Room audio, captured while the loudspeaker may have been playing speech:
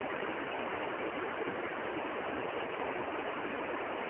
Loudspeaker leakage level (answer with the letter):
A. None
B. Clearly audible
A